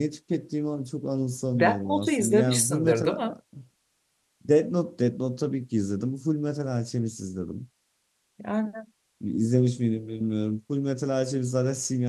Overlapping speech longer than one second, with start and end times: 1.5-3.1

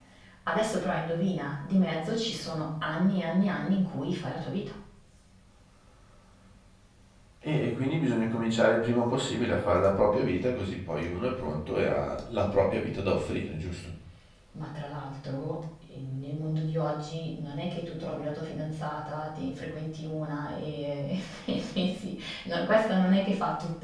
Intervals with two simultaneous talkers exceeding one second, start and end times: none

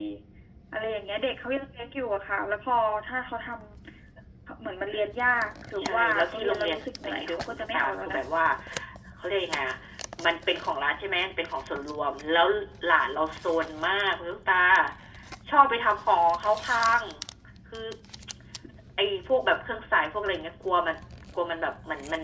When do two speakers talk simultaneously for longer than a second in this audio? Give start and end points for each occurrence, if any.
5.8-8.2

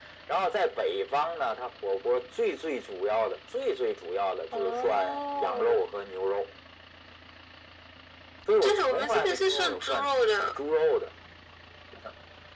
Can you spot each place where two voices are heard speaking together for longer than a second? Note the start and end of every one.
4.5-5.8, 8.6-10.1

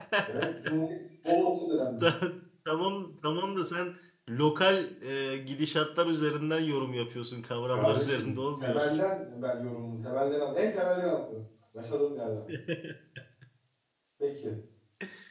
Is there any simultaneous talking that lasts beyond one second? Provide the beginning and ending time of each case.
7.7-9.0

